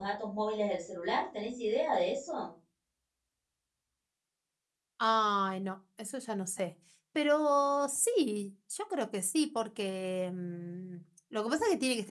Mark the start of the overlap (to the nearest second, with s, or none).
none